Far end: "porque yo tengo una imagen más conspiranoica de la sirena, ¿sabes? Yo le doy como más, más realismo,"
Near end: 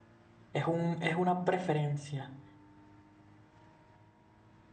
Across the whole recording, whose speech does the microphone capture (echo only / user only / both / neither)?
user only